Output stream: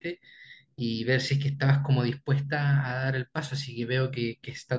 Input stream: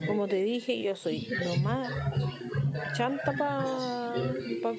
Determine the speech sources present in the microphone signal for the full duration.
both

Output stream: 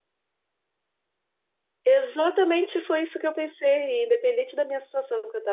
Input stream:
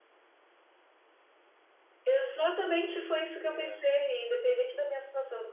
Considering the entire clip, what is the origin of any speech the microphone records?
both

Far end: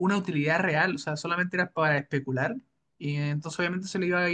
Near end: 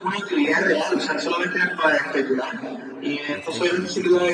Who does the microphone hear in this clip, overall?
both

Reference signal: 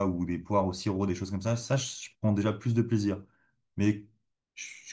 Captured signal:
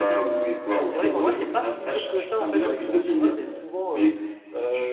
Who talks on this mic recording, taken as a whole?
both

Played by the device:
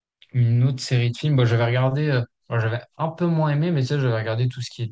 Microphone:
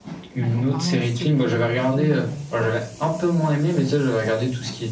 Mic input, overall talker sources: both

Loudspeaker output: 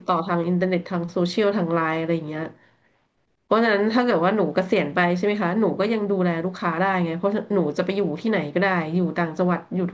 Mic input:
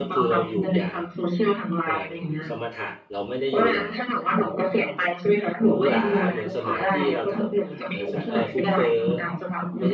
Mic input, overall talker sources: both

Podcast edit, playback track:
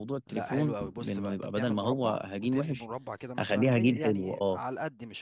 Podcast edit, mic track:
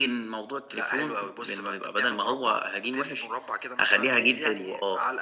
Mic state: echo only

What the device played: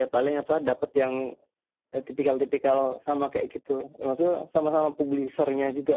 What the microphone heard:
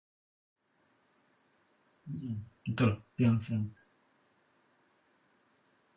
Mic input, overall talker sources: user only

